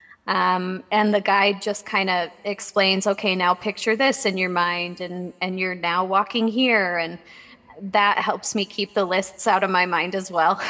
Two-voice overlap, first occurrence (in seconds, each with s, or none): none